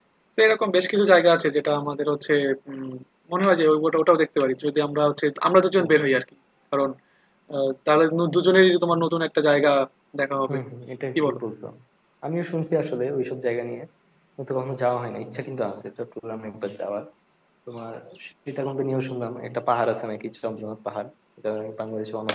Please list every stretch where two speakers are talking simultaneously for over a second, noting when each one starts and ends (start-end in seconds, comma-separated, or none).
none